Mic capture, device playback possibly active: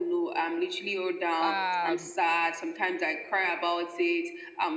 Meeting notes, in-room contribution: present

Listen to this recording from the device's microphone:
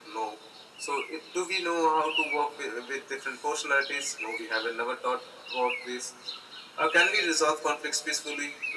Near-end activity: none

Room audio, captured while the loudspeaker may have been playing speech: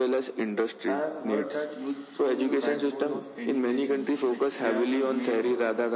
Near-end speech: present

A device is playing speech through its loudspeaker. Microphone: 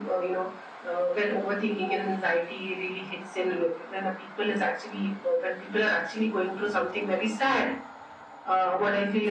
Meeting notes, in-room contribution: none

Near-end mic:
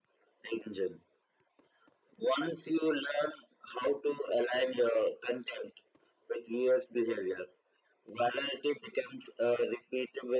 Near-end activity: none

